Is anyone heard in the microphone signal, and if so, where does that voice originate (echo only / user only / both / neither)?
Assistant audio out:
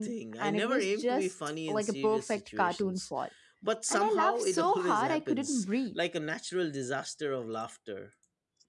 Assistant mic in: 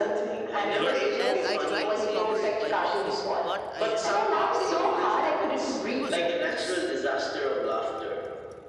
both